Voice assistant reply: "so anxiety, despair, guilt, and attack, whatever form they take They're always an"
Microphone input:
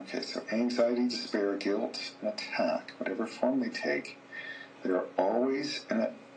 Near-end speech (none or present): none